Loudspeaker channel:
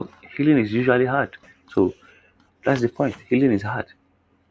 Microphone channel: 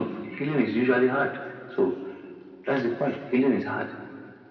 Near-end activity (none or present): none